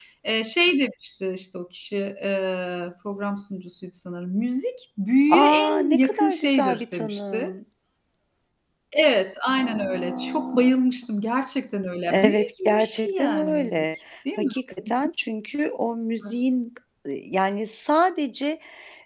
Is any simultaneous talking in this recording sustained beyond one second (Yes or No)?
Yes